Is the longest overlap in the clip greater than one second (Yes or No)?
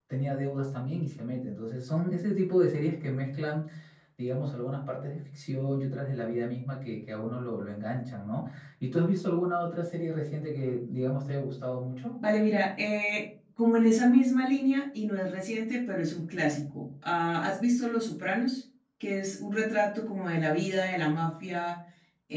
No